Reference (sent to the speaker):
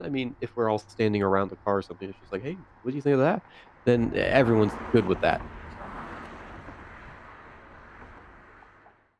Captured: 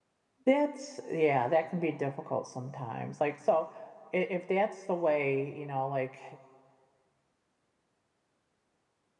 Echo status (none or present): none